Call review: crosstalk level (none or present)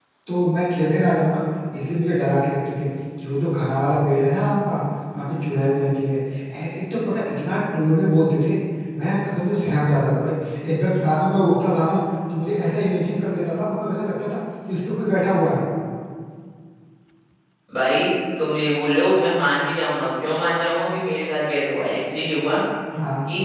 none